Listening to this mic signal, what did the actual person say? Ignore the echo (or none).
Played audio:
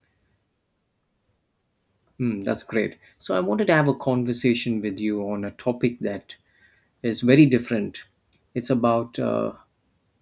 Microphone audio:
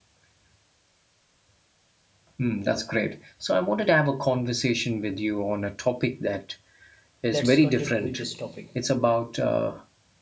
Let's continue with this topic.